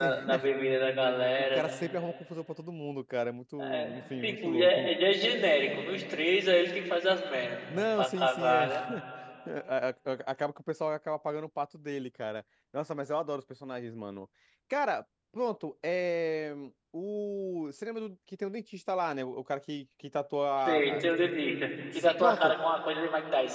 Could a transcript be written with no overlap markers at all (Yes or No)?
No